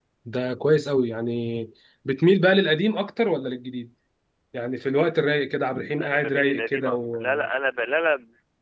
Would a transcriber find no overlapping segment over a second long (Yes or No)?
No